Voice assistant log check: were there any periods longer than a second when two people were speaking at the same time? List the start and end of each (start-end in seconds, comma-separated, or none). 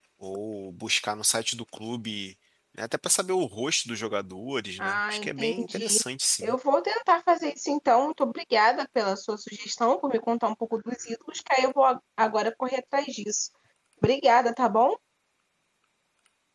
4.8-6.0